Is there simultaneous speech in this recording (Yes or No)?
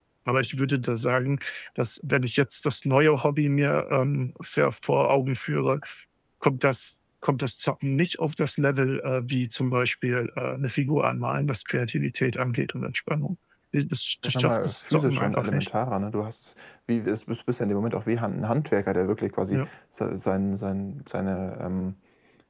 Yes